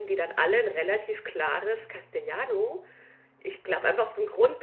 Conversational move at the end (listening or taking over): listening